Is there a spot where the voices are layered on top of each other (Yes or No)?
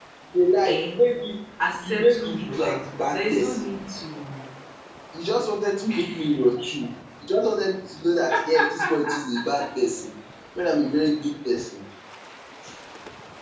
Yes